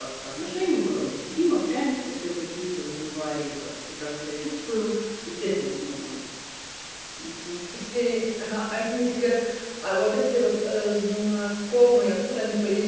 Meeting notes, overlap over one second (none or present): none